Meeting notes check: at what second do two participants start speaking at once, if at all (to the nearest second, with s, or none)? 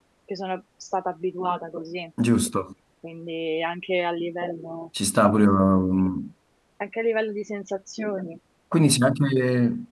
none